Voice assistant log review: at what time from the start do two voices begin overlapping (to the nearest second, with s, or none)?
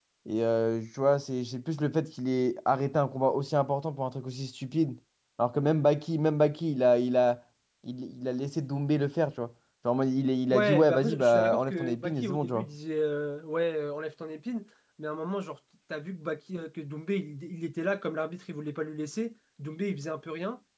11 s